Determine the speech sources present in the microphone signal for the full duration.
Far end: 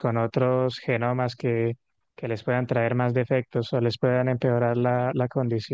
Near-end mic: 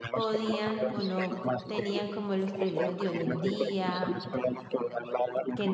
both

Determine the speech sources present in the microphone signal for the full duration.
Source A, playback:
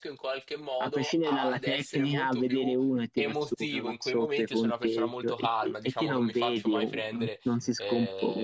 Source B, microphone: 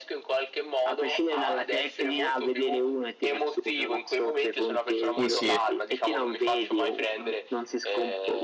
both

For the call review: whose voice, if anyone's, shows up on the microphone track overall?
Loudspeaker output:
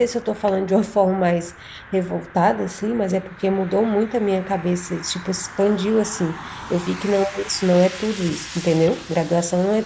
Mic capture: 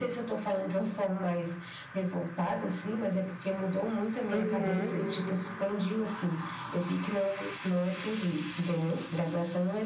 both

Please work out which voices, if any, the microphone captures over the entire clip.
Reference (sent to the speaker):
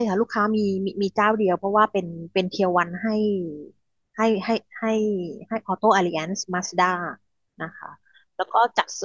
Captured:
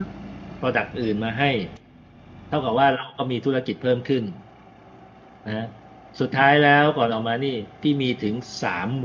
user only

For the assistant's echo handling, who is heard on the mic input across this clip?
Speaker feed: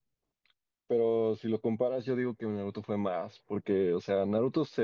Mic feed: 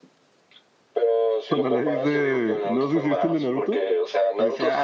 both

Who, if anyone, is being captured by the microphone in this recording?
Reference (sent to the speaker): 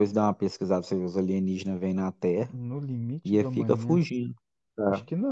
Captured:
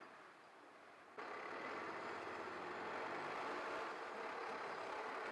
neither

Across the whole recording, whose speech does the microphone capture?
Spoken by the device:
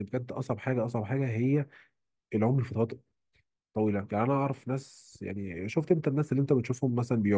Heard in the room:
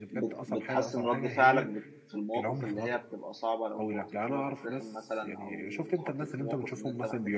both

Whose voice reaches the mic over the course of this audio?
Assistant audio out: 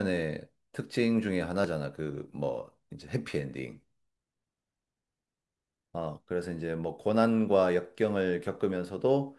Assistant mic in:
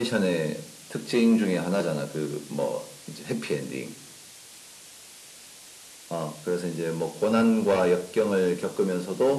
echo only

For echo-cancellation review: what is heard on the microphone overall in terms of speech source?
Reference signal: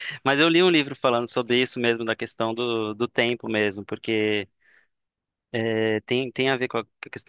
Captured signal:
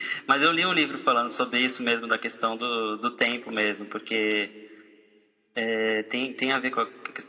echo only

